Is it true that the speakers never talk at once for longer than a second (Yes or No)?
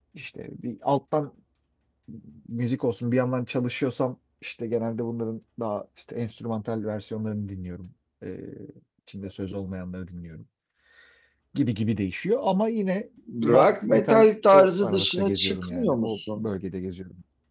No